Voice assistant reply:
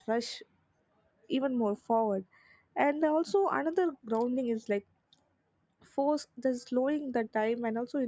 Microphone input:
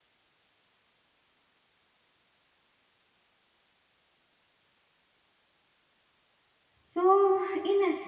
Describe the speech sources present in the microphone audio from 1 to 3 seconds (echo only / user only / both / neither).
neither